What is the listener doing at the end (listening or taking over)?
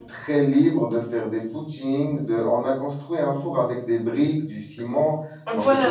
taking over